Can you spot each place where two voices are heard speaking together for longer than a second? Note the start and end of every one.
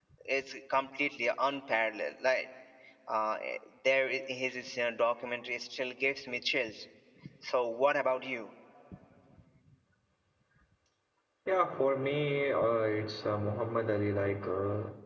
none

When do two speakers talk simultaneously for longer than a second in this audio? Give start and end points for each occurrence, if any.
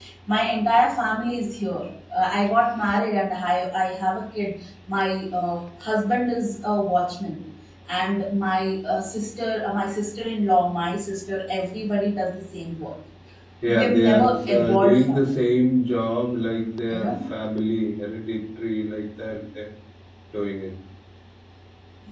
13.7-15.3

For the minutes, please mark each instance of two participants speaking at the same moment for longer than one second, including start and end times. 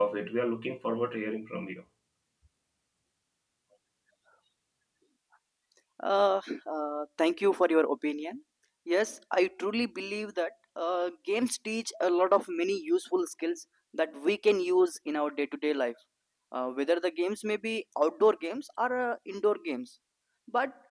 none

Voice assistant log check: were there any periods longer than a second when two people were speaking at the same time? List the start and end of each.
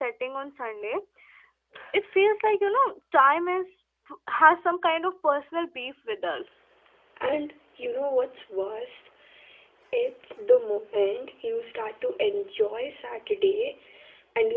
none

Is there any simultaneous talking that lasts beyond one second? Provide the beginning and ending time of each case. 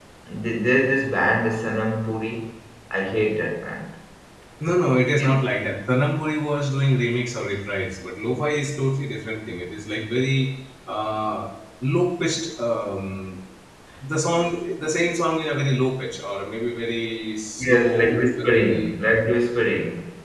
17.6-18.9

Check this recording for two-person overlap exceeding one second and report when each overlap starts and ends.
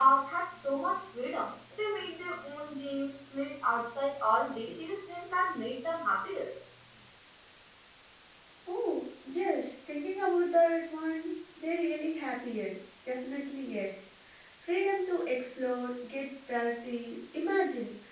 none

